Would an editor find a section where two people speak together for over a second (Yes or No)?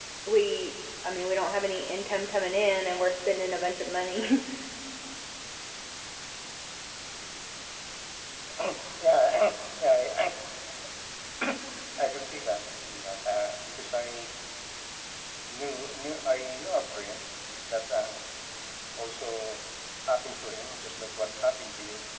No